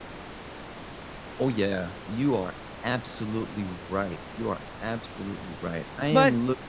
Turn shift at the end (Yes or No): No